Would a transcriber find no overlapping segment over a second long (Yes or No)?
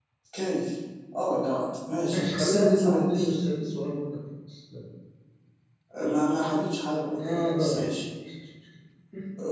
No